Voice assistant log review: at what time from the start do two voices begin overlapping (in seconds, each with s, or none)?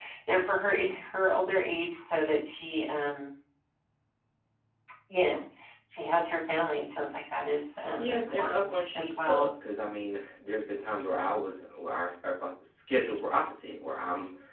8.0 s